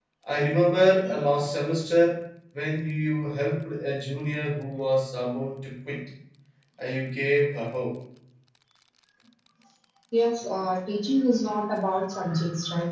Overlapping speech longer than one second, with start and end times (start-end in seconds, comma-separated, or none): none